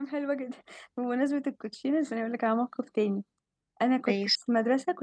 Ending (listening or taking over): listening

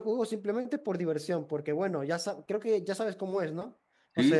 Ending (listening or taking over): listening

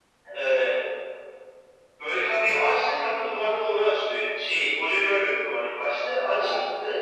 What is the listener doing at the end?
listening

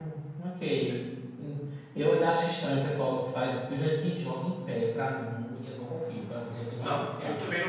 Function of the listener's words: taking over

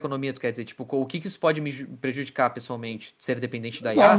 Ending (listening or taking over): taking over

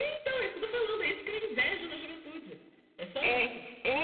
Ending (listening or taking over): taking over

